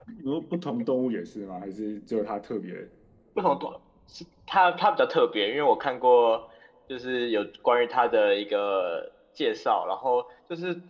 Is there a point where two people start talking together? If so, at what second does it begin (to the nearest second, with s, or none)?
none